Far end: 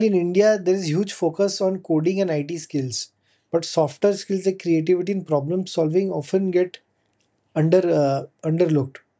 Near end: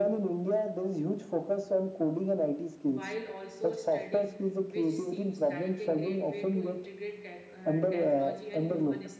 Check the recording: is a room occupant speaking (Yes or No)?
Yes